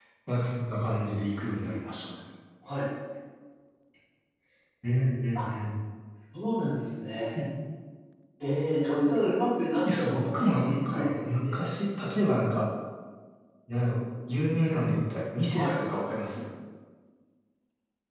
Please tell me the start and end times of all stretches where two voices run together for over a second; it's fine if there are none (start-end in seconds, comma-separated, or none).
10.0-11.6